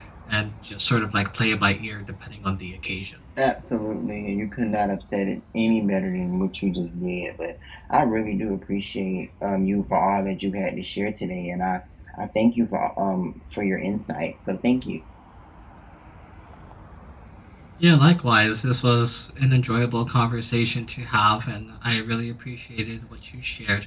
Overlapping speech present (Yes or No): No